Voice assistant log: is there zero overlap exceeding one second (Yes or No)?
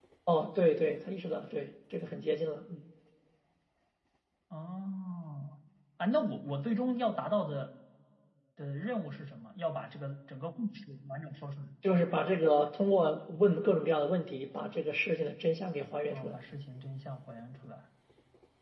Yes